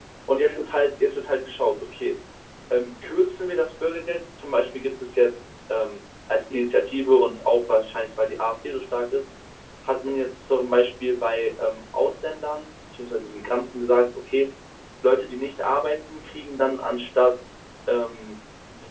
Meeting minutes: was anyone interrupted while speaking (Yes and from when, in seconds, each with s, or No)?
No